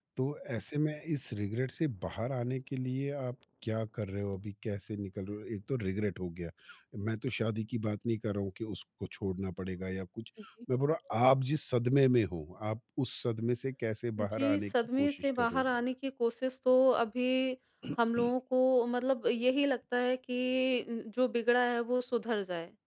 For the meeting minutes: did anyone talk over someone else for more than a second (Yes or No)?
Yes